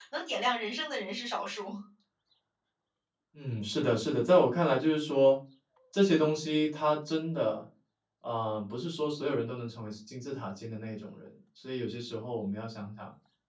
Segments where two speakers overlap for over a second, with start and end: none

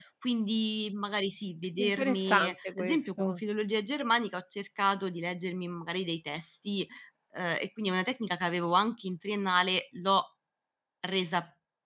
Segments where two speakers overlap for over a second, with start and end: 1.8-3.4

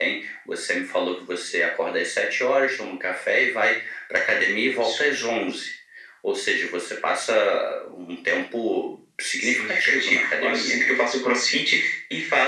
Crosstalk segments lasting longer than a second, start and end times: 9.4-10.9

